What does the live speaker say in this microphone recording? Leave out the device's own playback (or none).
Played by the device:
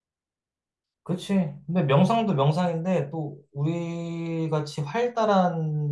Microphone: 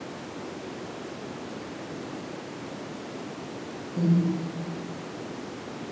음.